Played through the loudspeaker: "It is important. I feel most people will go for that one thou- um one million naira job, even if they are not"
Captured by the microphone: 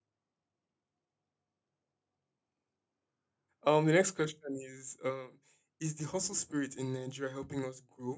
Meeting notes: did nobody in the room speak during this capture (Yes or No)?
No